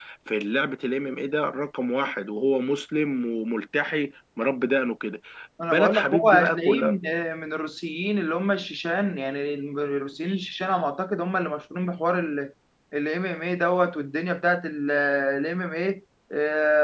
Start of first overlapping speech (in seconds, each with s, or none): 5.7 s